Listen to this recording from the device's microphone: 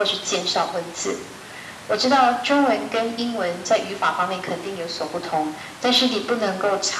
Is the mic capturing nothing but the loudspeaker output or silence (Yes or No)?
Yes